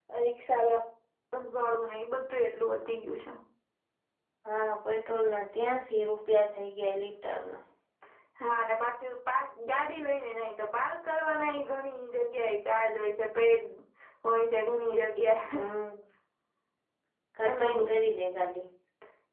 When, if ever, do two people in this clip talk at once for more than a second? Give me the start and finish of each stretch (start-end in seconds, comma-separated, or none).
none